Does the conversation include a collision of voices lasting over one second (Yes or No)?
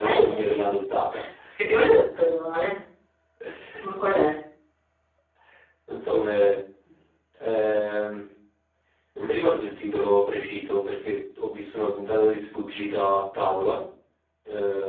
No